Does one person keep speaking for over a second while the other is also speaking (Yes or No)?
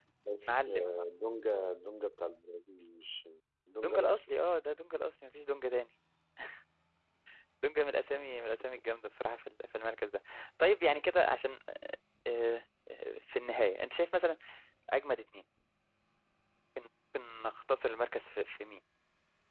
No